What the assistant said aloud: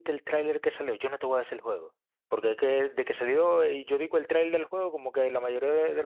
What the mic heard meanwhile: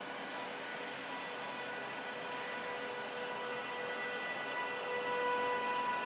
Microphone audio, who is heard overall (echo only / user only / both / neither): neither